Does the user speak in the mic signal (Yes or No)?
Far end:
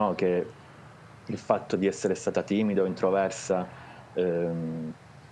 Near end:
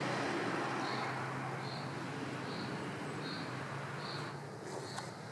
No